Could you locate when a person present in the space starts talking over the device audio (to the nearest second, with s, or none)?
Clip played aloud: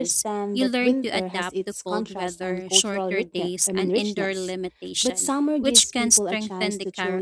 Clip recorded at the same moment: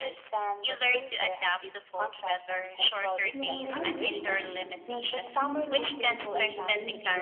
3 s